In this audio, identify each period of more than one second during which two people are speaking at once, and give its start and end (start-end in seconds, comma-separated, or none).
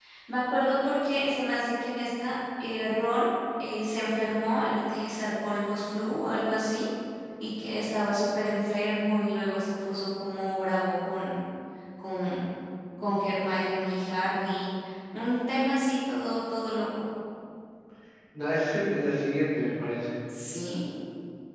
none